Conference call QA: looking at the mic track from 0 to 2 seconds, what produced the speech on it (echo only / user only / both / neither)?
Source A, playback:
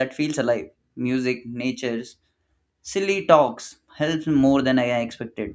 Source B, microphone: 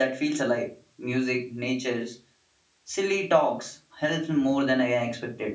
echo only